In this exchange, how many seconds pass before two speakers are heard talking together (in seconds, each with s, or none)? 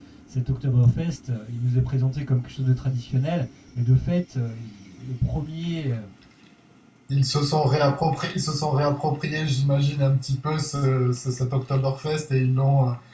none